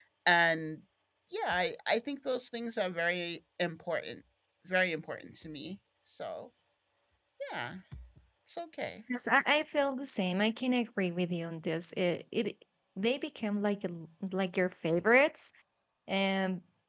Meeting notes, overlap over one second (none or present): none